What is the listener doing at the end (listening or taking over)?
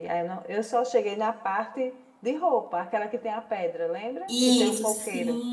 taking over